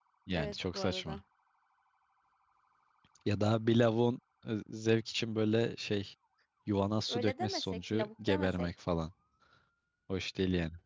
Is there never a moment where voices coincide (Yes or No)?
No